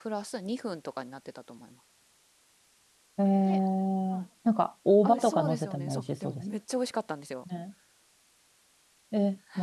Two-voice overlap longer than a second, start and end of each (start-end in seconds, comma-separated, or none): 5.0-6.4